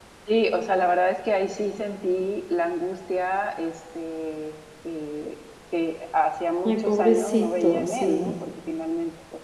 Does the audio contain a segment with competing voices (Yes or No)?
Yes